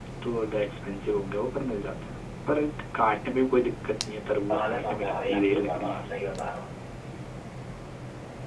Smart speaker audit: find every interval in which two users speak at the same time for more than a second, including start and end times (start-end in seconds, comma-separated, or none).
4.5-6.2